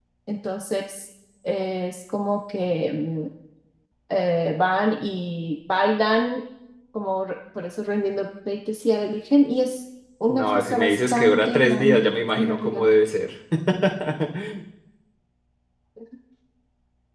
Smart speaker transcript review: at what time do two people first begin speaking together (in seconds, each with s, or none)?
10.3 s